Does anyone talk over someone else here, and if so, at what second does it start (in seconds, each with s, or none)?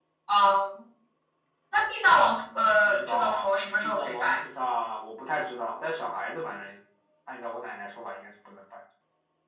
2.8 s